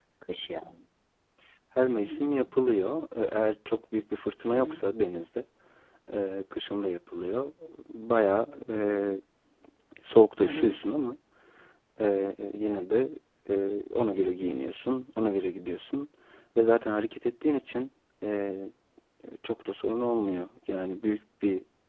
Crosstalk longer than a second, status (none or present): none